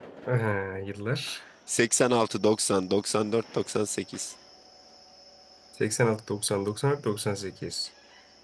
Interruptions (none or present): none